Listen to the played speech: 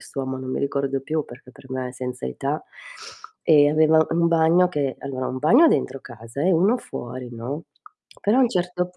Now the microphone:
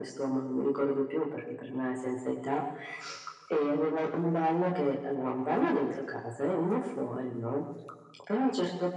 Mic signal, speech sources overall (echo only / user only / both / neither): echo only